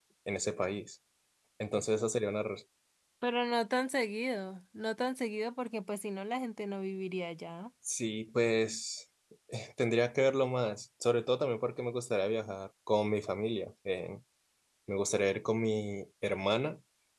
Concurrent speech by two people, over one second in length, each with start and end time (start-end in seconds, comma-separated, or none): none